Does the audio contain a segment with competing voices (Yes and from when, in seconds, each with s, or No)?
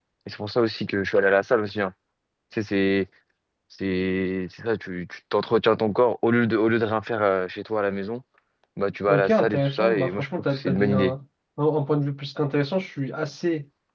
Yes, from 9.1 s